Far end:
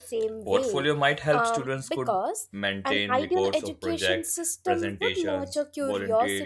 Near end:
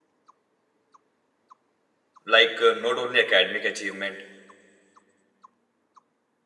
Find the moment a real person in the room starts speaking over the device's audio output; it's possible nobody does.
2.2 s

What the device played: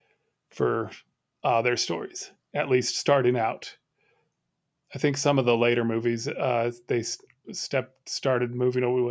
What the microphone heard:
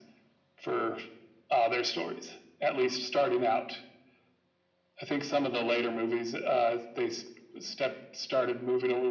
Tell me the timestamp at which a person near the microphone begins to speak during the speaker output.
none

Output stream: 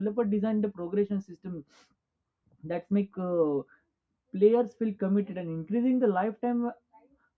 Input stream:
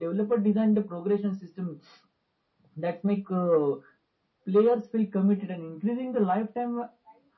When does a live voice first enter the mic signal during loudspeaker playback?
none

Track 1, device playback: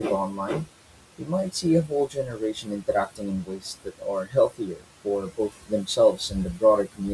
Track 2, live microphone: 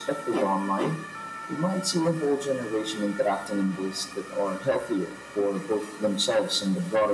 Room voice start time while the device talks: none

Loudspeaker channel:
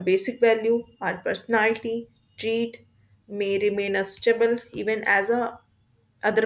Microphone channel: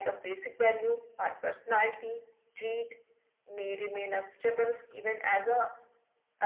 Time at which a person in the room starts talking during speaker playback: none

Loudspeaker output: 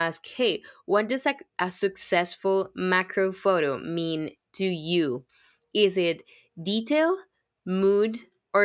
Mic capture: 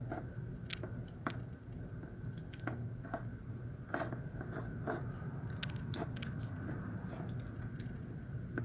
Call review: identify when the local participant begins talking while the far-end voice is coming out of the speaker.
none

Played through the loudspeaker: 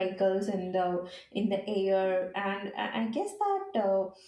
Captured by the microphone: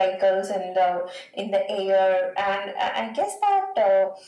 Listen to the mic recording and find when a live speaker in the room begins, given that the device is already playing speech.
none

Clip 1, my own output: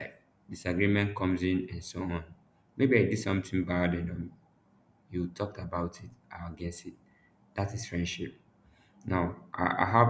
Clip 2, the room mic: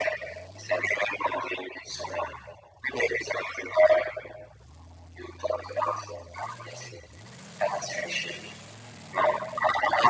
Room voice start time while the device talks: none

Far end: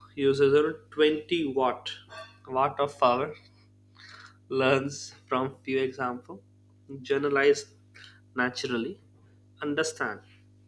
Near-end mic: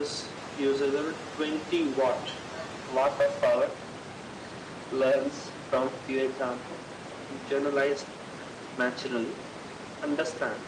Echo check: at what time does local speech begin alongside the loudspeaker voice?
none

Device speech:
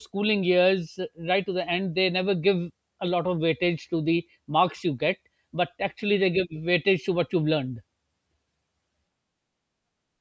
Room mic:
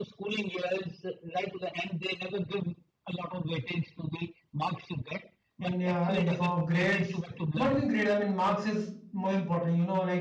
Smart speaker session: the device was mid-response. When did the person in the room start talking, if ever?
5.6 s

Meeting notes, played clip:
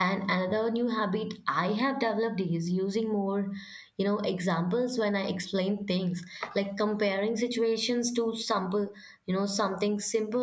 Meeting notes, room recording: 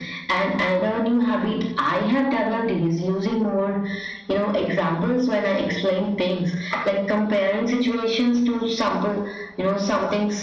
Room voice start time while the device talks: none

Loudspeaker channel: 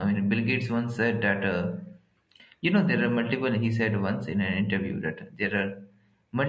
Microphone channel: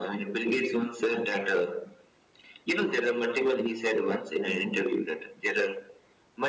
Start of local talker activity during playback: none

